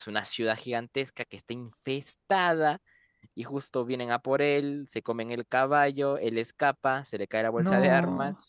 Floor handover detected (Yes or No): No